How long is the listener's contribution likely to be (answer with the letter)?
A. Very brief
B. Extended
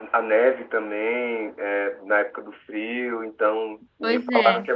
A